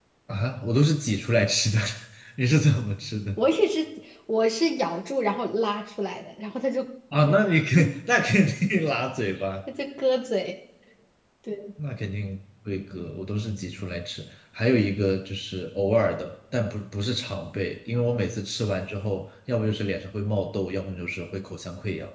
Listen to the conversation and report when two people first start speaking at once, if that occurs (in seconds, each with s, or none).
none